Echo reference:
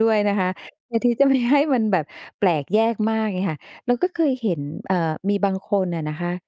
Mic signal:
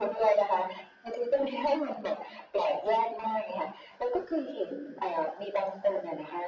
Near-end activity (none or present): none